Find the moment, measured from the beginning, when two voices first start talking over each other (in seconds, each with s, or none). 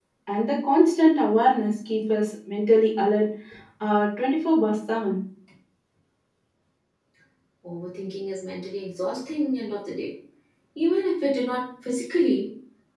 none